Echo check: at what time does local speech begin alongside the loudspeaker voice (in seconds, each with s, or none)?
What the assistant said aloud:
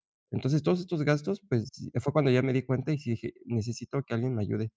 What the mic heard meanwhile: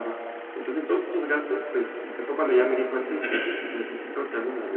3.2 s